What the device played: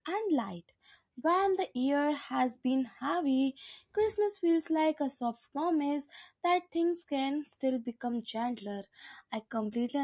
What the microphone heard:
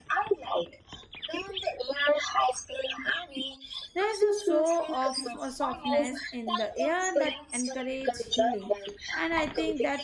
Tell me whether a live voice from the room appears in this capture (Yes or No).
Yes